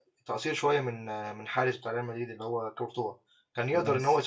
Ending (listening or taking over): listening